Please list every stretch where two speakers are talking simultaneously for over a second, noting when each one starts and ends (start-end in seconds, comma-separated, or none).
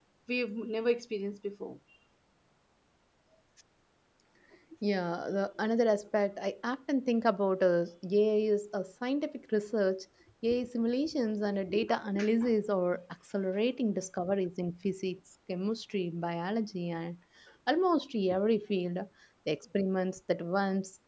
none